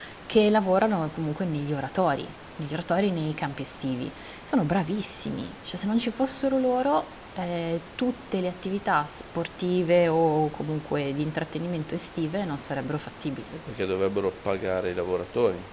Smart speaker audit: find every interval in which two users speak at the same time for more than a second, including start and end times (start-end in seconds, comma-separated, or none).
none